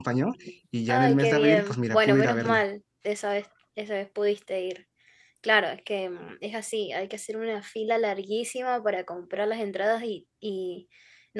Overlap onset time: 0.9 s

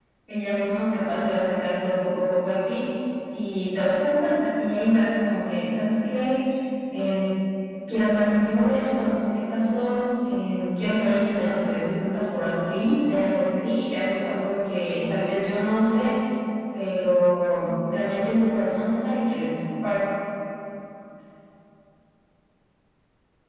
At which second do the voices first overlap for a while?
none

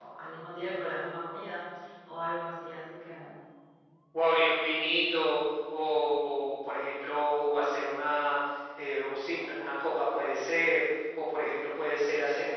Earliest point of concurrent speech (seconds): none

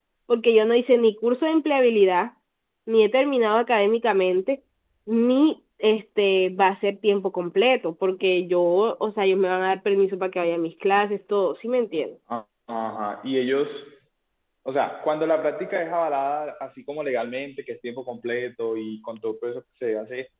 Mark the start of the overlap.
none

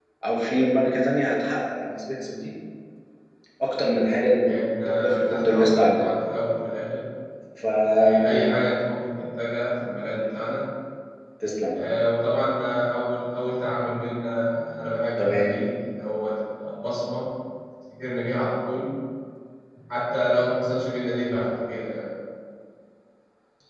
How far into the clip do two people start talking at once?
4.5 s

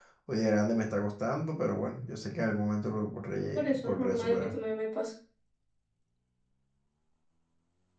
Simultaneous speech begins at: 3.4 s

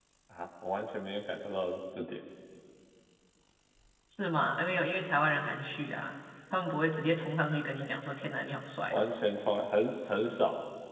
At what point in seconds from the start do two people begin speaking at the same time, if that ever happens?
none

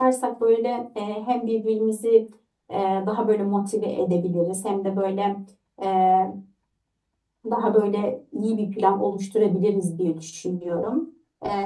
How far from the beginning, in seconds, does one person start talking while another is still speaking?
none

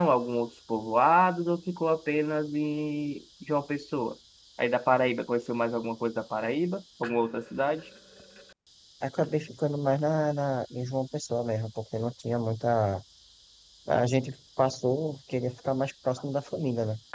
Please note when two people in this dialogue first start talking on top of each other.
none

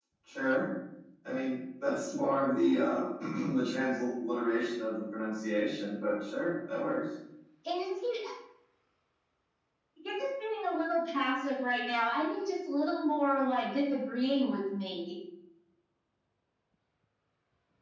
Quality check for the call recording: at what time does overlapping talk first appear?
none

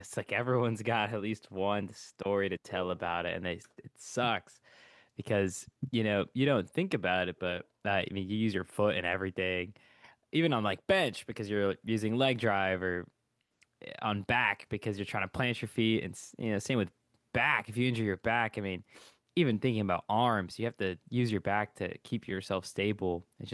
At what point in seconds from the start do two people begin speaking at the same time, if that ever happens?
none

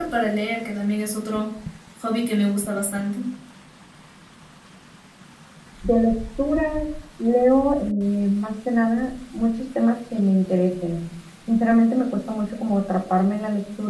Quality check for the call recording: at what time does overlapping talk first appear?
none

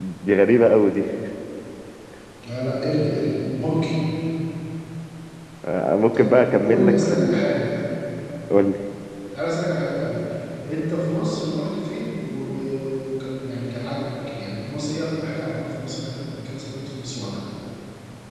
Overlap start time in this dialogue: 6.1 s

